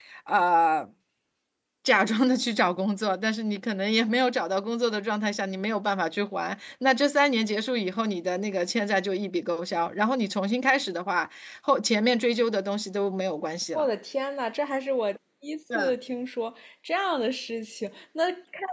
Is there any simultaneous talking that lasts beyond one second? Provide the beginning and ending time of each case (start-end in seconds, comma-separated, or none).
none